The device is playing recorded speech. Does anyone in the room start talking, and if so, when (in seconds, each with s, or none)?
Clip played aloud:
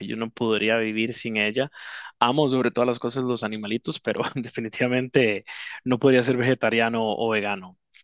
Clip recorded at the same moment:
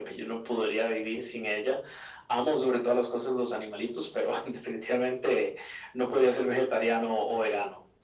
none